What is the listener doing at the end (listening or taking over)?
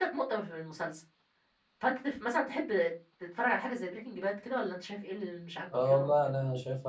taking over